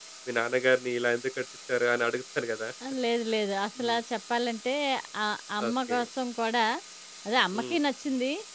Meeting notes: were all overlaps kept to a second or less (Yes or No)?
Yes